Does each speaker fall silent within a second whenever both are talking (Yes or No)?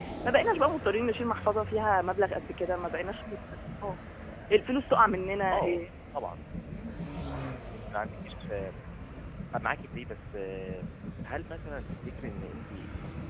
Yes